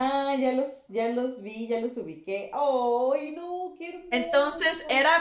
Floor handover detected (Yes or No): Yes